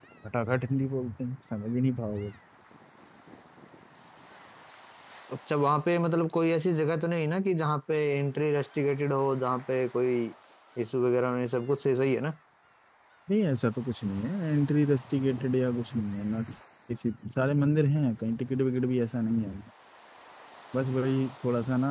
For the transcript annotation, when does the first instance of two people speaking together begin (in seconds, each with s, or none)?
none